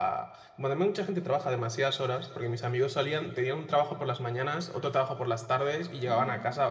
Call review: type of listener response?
listening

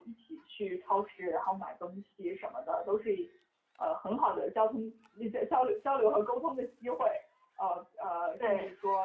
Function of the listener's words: listening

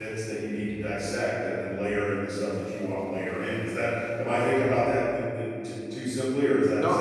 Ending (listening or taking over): taking over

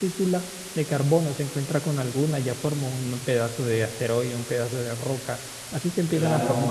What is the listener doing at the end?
listening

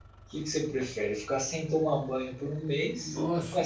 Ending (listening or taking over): listening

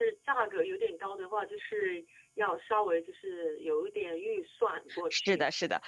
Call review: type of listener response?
taking over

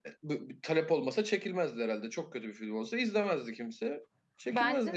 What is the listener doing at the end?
taking over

